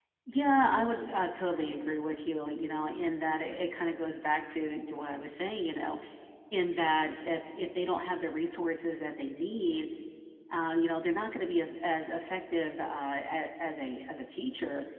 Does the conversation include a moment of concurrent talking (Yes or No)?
No